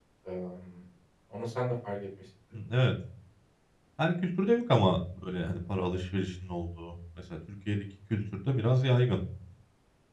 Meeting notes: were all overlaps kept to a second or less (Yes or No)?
Yes